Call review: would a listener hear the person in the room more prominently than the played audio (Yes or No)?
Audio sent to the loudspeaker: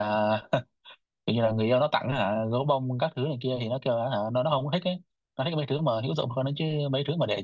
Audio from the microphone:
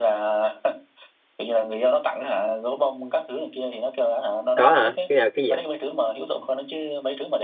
Yes